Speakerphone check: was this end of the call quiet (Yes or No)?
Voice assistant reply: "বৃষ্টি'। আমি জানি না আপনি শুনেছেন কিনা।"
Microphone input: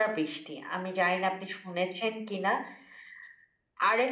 Yes